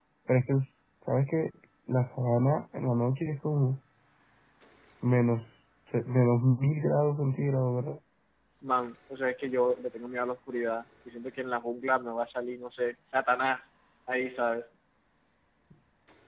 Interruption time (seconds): none

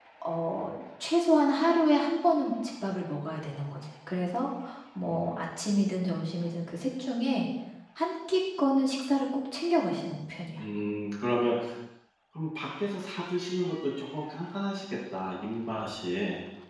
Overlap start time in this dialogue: none

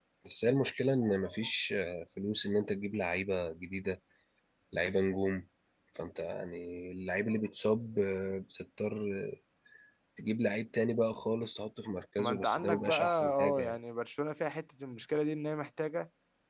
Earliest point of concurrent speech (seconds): 12.2 s

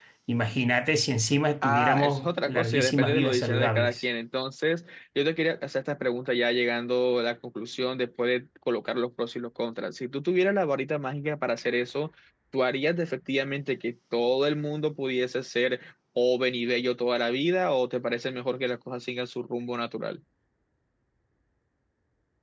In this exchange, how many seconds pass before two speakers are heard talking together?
1.6 s

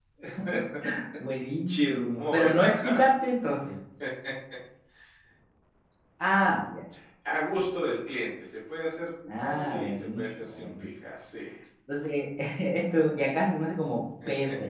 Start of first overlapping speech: 1.7 s

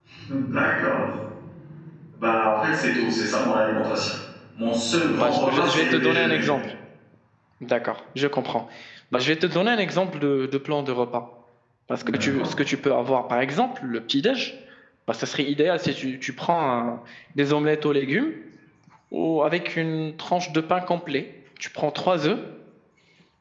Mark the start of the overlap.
5.1 s

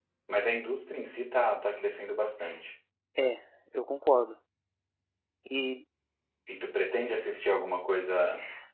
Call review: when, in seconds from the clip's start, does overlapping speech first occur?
none

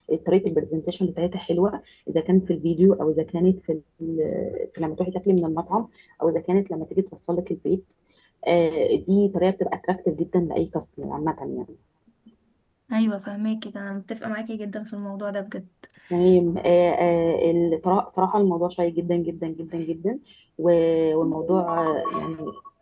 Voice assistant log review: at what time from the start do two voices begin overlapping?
none

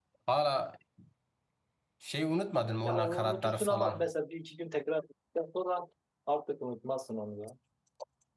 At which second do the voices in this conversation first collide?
2.8 s

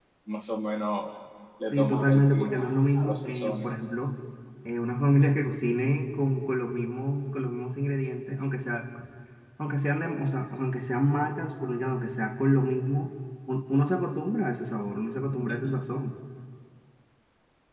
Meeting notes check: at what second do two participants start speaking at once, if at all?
1.7 s

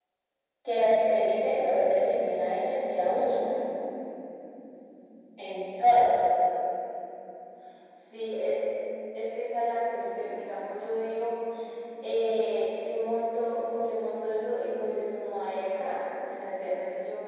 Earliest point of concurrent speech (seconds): none

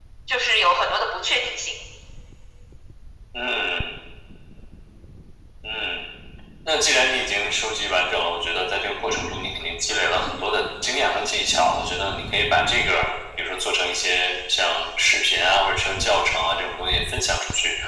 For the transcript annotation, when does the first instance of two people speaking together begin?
none

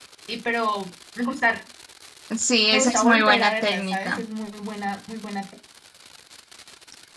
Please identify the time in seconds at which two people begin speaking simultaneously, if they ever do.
2.7 s

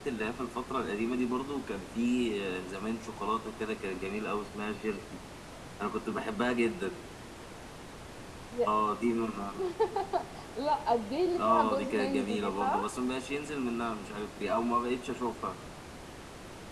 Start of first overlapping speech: 11.5 s

